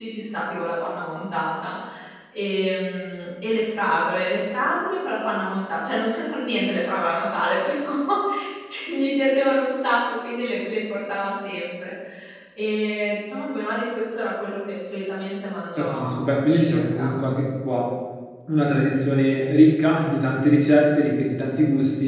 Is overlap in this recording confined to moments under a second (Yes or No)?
No